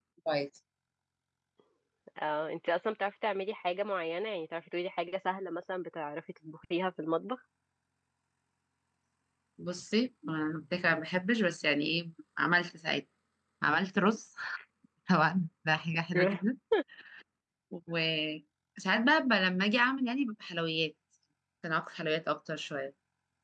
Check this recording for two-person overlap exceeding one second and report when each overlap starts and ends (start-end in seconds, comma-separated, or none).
none